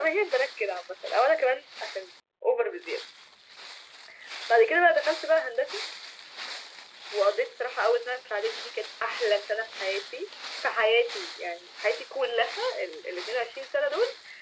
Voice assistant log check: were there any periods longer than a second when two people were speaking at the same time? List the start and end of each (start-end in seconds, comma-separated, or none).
none